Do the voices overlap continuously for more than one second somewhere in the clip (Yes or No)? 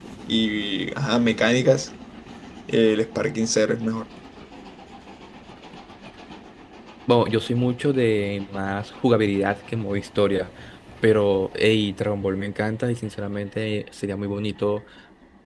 No